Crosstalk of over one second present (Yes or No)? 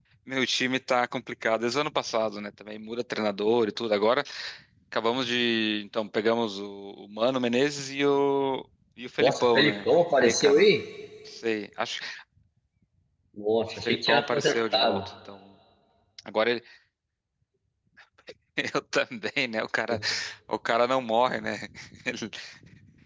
Yes